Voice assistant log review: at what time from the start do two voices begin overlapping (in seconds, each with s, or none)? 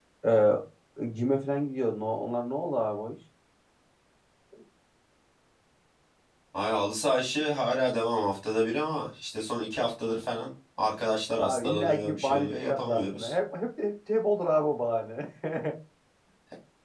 11.4 s